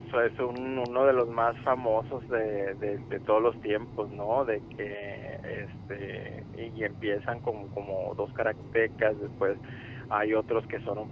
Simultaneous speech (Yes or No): No